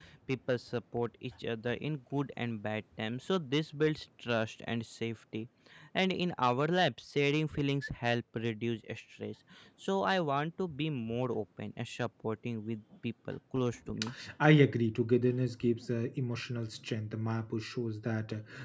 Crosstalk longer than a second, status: none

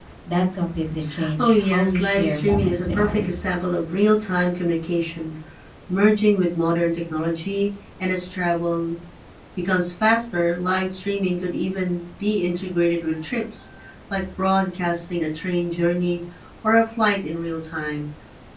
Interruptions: present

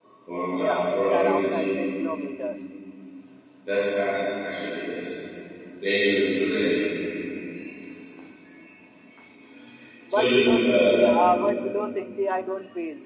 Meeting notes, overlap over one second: present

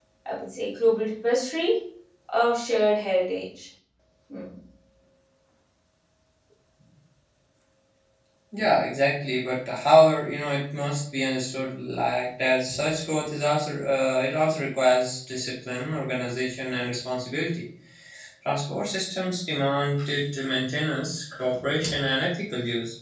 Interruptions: none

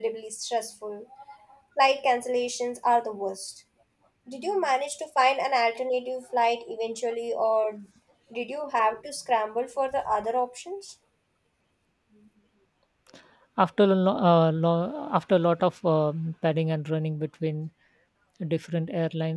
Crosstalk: none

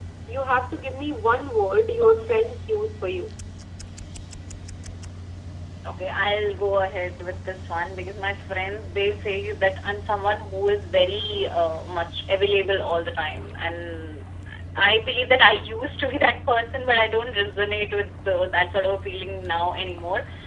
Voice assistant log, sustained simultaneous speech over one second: none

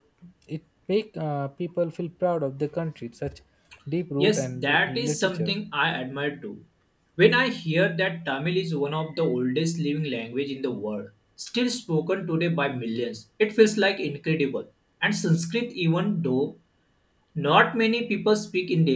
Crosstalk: present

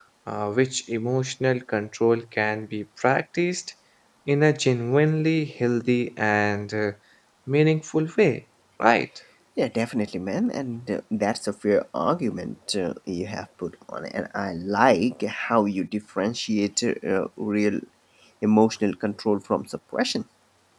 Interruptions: none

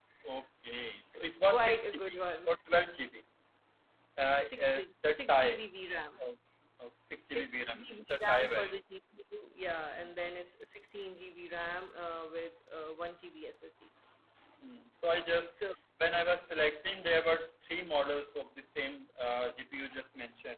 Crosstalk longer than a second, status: present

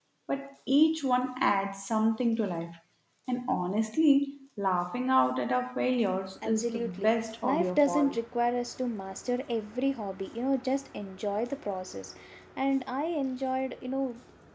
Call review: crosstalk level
present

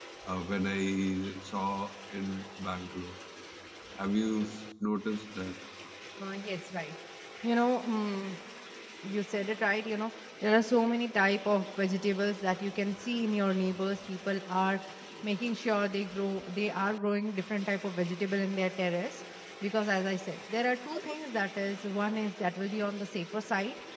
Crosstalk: none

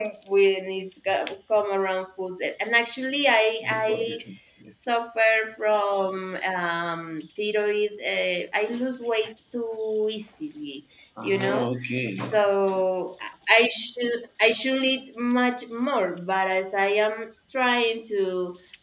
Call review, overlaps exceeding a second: none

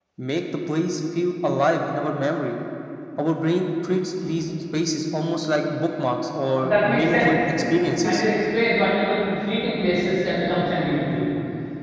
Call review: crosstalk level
present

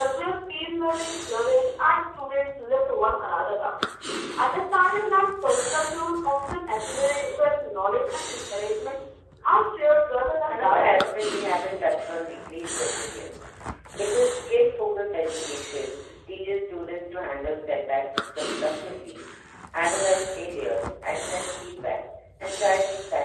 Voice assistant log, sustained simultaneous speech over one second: none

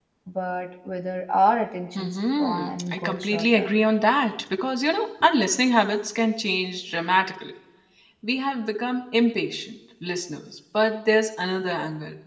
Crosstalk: present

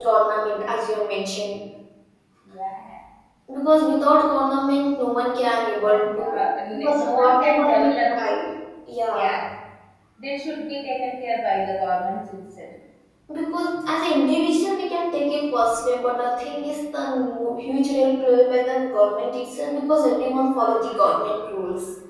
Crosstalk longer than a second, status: present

